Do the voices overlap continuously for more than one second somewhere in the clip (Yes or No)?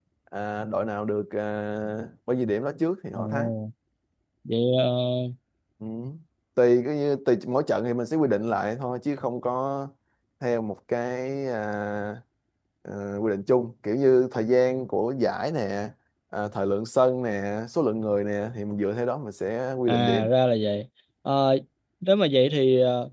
No